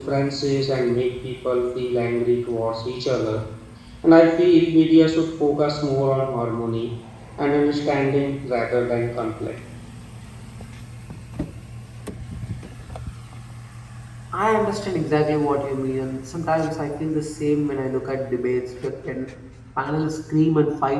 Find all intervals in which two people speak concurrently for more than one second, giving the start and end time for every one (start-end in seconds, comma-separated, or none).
none